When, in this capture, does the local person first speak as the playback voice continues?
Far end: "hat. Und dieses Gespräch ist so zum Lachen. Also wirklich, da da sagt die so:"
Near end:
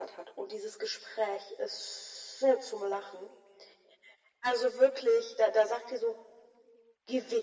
none

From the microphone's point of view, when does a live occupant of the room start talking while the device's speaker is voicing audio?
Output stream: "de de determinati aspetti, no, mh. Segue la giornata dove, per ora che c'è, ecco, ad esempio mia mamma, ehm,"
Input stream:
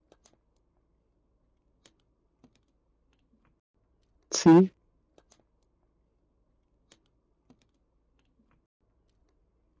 4.3 s

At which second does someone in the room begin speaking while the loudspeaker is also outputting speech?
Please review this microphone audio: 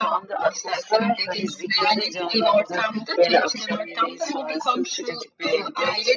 none

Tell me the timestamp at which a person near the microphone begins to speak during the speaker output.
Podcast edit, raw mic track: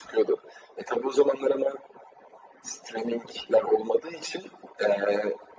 none

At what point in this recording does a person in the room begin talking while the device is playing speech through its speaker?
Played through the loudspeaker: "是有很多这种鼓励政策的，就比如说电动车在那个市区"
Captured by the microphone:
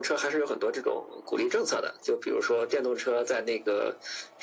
none

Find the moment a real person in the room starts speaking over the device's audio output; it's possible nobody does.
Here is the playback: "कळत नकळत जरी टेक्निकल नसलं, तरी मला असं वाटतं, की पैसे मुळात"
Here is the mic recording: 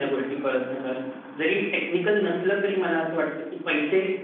none

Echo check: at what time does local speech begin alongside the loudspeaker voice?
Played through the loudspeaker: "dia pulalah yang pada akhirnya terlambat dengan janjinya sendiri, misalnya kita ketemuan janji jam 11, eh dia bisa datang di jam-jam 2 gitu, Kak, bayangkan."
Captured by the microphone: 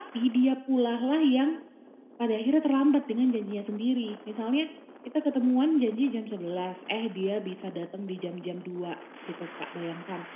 none

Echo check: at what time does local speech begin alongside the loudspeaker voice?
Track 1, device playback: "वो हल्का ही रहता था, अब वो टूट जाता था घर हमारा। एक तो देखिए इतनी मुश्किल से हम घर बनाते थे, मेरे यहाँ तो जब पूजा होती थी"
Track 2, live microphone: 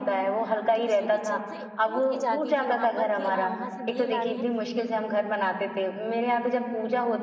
0.7 s

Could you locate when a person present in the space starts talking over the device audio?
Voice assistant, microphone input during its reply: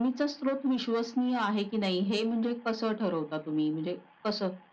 none

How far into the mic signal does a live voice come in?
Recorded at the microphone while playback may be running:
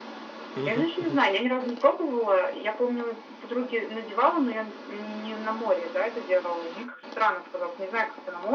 0.6 s

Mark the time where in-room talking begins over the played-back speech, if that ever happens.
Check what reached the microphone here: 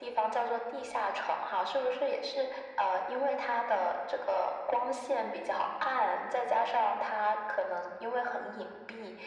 none

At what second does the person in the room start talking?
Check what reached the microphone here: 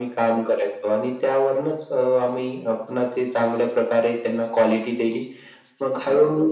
none

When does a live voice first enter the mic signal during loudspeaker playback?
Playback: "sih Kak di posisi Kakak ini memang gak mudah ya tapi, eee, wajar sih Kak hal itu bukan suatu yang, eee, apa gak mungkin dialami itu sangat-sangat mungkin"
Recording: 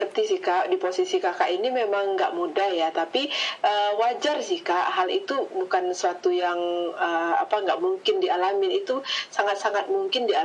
none

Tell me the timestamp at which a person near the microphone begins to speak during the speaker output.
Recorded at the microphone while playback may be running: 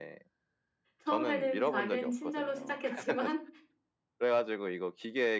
1.0 s

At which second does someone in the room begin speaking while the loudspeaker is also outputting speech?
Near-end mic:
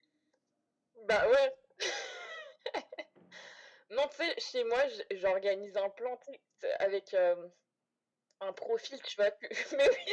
none

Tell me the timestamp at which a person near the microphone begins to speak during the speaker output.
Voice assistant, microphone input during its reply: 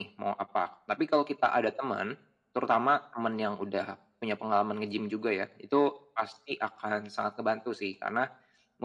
none

